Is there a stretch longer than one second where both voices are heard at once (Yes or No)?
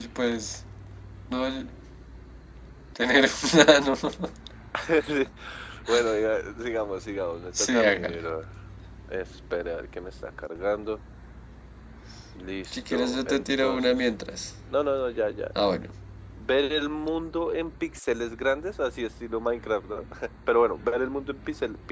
Yes